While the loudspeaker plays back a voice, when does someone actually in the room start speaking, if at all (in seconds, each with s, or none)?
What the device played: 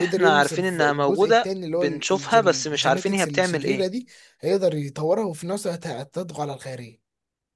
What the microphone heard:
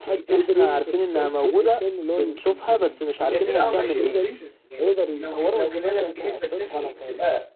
3.3 s